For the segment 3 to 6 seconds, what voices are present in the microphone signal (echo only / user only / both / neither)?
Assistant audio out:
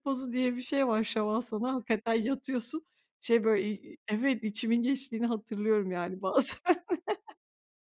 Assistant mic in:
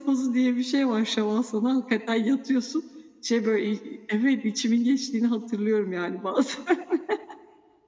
echo only